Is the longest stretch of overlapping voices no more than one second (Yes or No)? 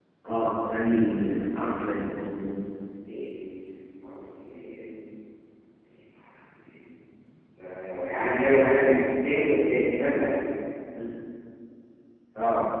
Yes